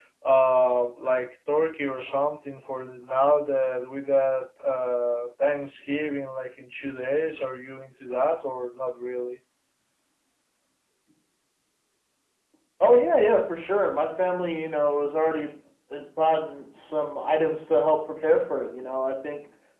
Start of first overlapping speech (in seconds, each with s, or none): none